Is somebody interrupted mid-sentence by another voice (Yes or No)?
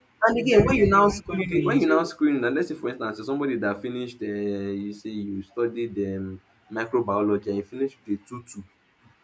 Yes